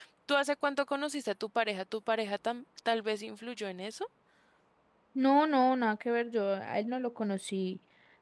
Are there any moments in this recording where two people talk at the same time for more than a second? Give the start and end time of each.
none

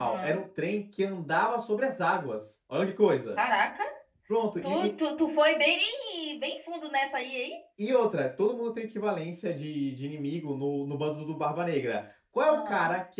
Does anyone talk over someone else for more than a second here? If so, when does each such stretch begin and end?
none

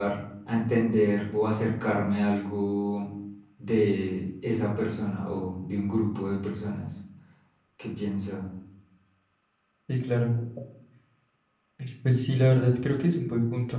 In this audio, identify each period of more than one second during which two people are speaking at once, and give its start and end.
none

